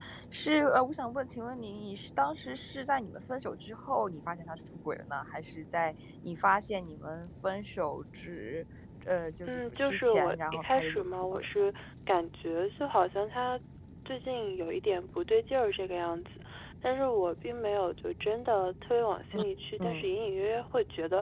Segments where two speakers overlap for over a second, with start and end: 9.5-11.4

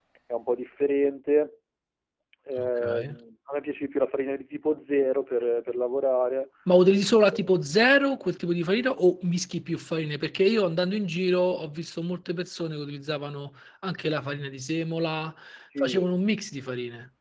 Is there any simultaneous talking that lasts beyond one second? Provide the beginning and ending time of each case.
none

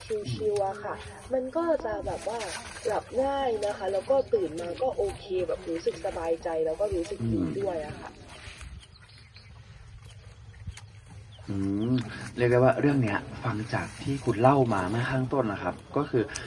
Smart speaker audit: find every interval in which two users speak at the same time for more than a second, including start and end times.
none

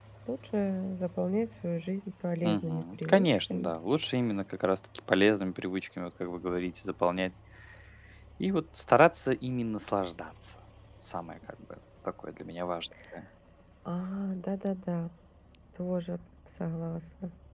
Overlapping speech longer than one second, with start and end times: 2.4-3.7

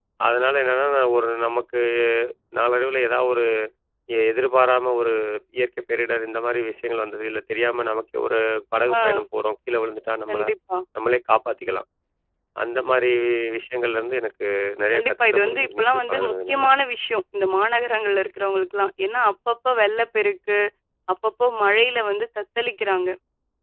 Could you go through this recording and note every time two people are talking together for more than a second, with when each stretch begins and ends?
14.9-16.6

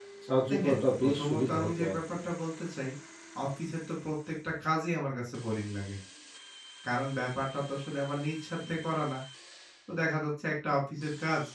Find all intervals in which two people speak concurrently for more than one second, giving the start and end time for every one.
0.5-2.2

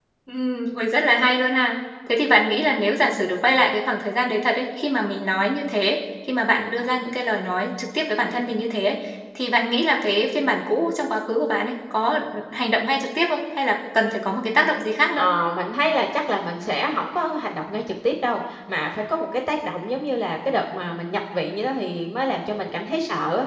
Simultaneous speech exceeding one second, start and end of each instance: none

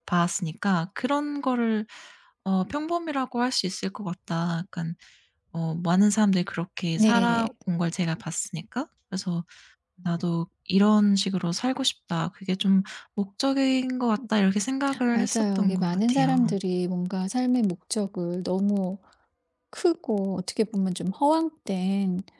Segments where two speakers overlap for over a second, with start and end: 15.1-16.6

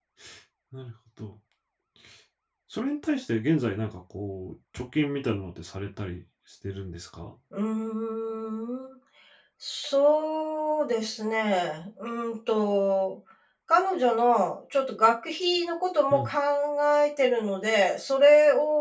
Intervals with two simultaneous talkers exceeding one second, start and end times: none

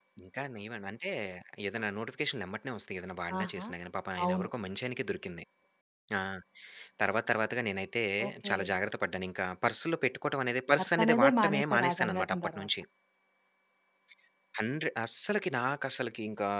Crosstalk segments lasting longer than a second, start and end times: 10.8-12.7

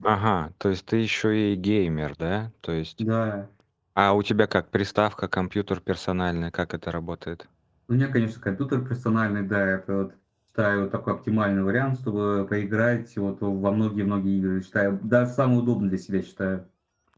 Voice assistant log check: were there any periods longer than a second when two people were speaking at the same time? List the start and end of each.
none

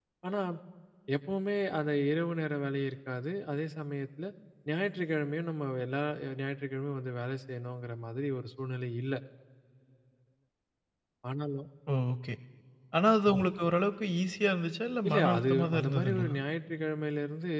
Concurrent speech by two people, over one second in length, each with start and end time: 15.1-16.3

